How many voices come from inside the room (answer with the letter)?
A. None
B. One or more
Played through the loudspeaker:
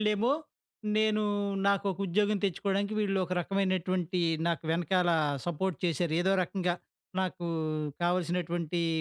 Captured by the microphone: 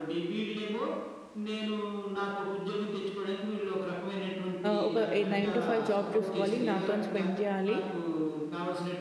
B